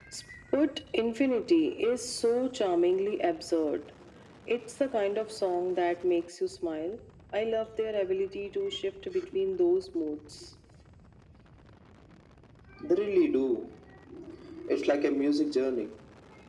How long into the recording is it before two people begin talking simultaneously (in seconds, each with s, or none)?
none